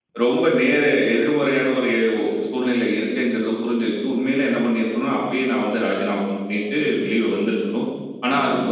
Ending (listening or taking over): listening